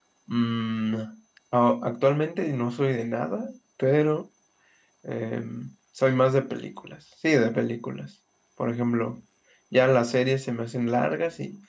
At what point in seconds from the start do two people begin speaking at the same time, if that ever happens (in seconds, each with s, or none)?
none